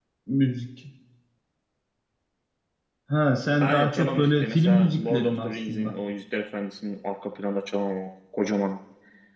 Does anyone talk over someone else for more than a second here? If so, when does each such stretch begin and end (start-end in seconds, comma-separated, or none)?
3.6-5.9